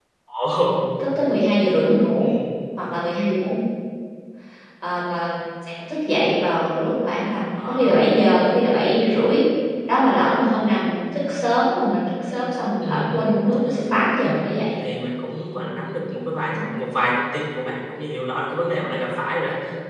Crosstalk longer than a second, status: none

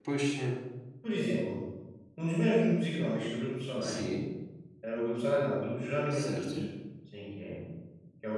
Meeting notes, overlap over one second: none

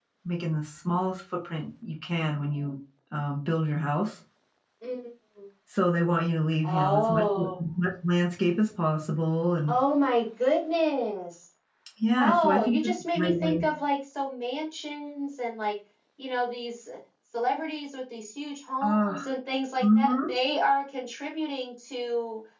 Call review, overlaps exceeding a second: present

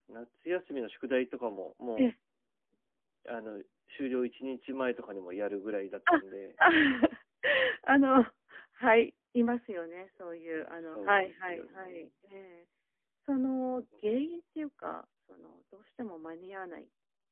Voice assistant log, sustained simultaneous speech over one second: present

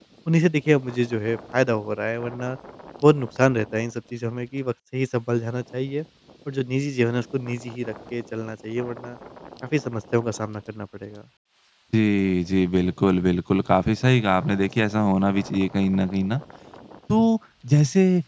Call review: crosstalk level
none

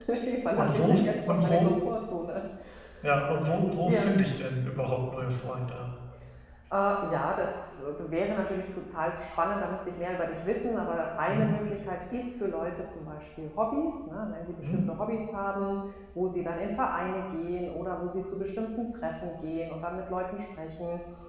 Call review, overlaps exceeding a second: present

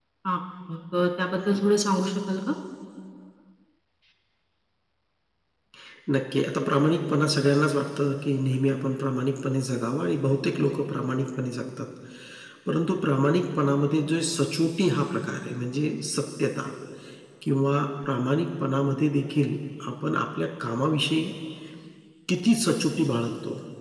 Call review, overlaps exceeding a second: none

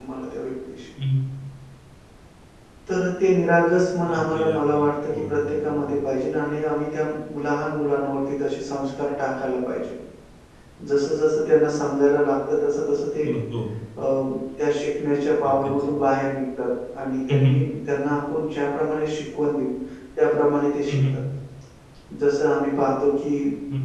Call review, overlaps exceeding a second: present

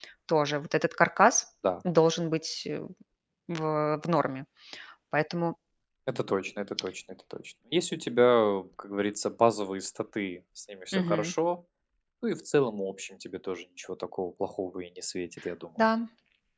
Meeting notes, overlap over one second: none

